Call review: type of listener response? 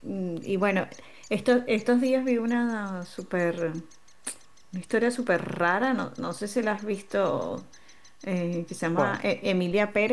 listening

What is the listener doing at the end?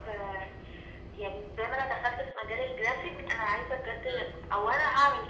listening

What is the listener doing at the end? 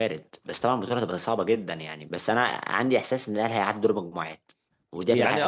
taking over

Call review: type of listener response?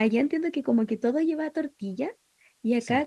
listening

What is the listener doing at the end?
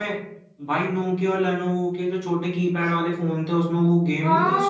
taking over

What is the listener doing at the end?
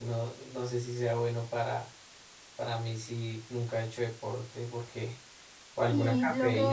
taking over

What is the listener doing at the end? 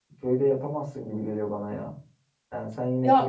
listening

